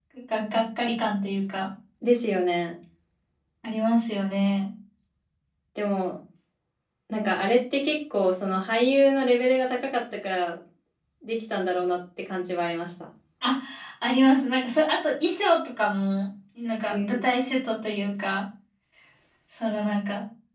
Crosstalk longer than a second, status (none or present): none